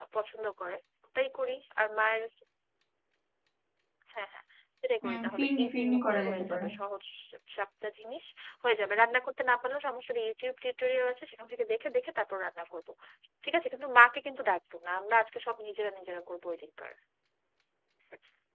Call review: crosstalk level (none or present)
present